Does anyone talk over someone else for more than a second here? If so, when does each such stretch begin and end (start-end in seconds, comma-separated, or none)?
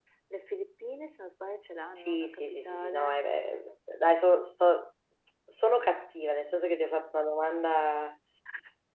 2.0-3.2